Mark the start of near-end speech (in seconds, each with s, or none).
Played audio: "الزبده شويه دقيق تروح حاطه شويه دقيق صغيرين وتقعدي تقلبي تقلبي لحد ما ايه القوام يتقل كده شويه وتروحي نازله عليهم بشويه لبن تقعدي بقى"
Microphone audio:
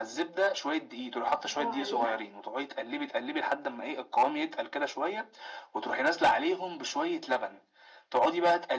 1.3 s